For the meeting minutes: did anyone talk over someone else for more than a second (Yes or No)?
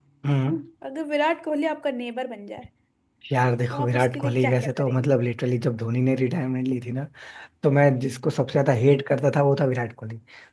Yes